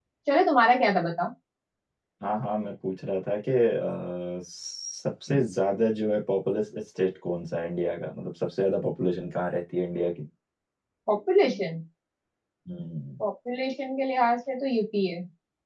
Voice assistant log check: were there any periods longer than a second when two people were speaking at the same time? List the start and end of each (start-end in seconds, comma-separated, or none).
none